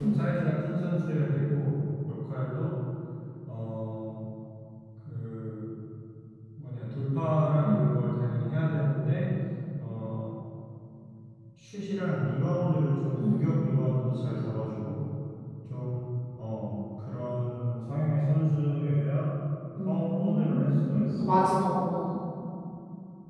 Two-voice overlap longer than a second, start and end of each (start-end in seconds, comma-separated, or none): 19.8-21.3